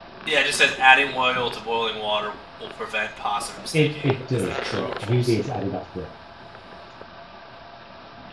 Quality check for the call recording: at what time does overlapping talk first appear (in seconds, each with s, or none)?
3.7 s